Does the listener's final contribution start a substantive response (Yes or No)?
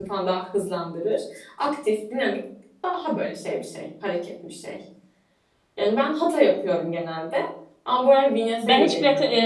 Yes